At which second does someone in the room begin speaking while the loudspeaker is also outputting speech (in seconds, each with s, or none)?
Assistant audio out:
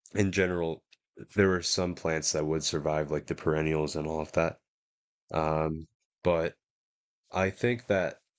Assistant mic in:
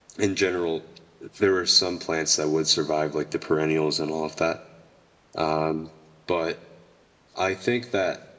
none